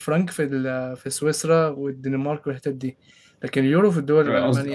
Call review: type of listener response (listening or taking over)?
taking over